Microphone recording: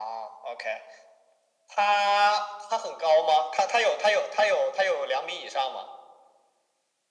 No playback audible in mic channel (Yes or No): No